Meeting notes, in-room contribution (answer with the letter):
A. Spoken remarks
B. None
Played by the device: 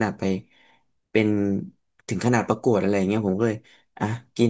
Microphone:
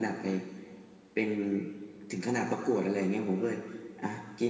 B